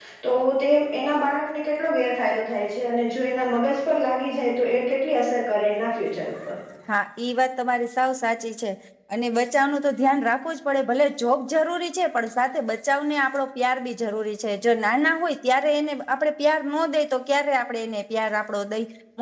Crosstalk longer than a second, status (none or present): none